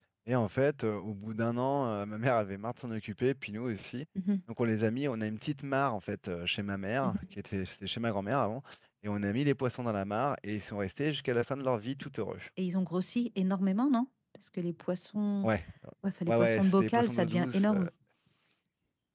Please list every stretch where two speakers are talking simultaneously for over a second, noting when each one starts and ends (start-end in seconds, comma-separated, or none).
16.3-17.8